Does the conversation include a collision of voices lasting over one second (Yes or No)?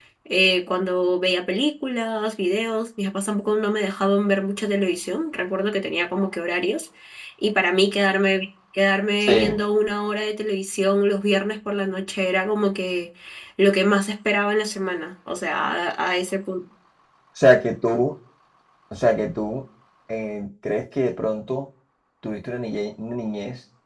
No